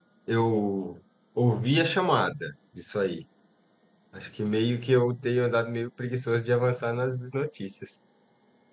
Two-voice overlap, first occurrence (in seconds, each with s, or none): none